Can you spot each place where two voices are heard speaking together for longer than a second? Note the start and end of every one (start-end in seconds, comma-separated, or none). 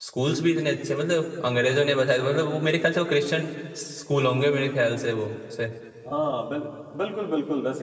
none